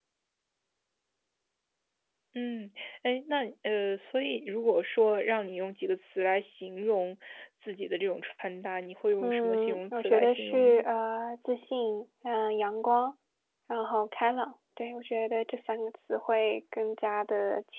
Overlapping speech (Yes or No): Yes